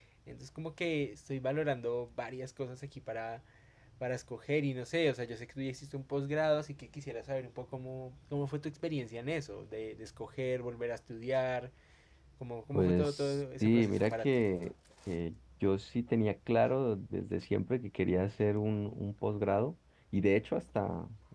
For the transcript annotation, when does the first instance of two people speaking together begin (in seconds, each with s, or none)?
12.7 s